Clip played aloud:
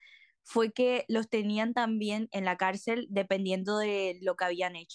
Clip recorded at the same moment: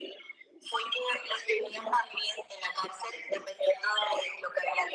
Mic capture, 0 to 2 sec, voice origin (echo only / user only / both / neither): echo only